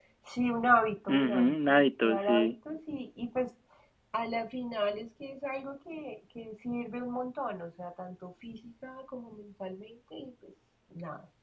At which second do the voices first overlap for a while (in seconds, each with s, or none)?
1.1 s